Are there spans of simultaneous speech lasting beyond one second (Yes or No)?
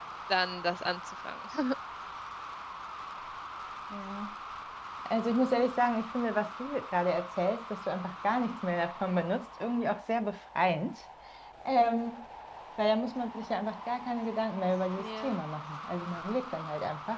No